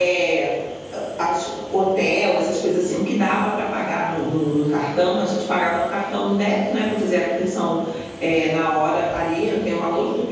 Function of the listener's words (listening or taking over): listening